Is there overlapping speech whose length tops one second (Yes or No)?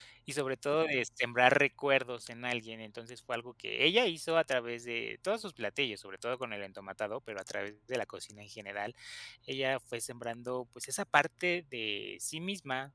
No